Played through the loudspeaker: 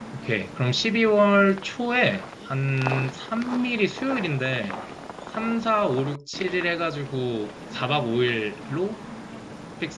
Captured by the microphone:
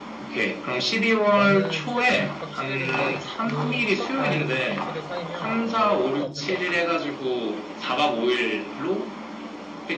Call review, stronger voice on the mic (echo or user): echo